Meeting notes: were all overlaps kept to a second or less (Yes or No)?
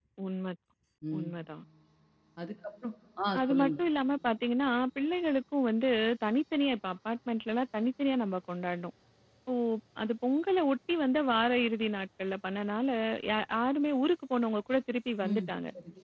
Yes